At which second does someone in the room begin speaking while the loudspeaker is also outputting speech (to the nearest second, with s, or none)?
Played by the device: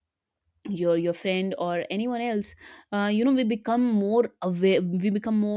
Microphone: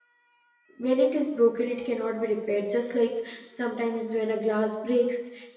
1 s